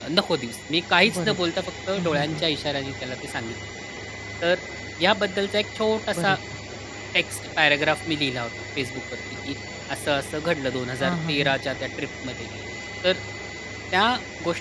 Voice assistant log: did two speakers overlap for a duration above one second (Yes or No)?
No